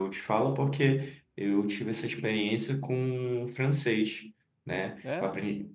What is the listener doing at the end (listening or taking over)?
listening